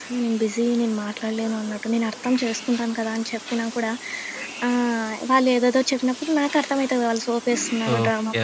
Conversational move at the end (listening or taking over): taking over